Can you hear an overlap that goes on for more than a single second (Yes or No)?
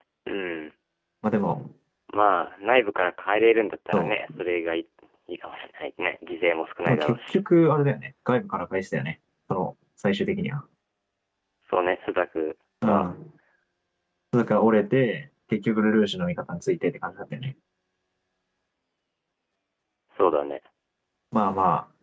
No